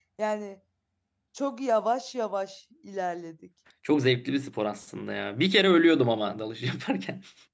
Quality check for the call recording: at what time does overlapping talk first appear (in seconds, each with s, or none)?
none